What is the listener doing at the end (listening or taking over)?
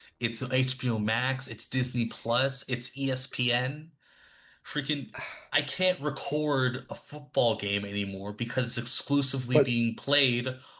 listening